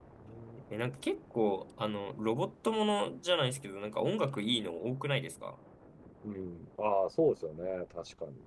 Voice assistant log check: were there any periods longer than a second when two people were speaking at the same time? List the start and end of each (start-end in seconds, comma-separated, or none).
none